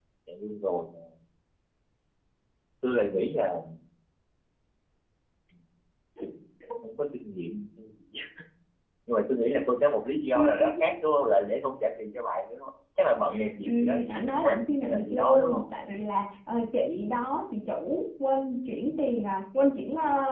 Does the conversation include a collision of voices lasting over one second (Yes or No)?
Yes